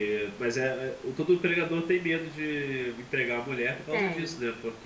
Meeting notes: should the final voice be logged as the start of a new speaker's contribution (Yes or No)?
No